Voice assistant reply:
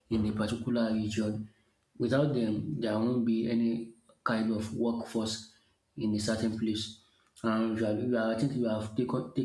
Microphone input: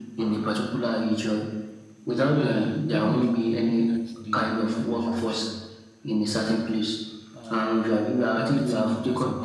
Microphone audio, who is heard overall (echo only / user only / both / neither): both